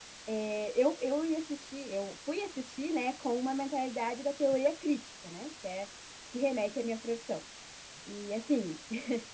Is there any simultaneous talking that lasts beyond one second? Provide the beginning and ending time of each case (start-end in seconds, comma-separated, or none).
none